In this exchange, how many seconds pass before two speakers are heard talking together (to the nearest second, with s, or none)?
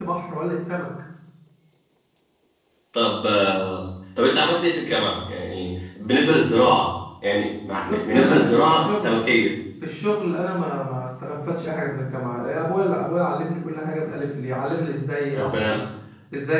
8 s